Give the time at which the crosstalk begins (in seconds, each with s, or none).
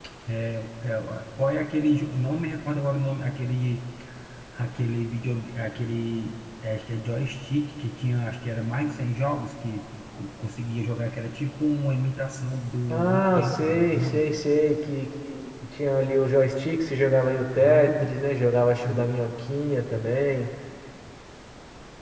12.9 s